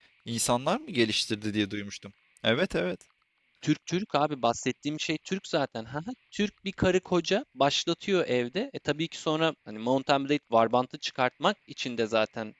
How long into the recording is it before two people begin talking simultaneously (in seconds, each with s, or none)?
none